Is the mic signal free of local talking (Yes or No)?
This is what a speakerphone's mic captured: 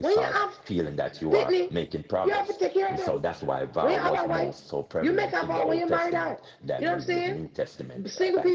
No